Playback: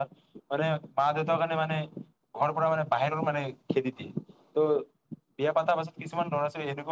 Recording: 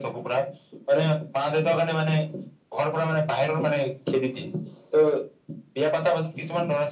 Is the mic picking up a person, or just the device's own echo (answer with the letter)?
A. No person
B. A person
A